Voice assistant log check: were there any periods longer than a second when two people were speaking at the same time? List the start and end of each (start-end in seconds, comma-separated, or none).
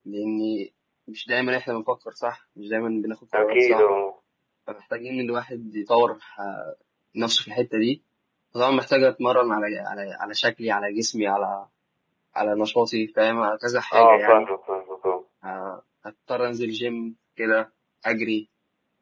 none